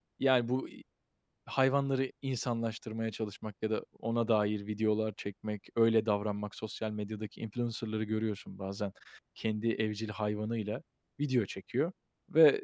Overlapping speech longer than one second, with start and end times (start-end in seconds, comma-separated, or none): none